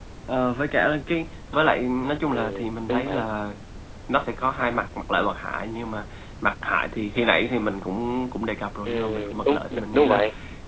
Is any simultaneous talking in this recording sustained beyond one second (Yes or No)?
Yes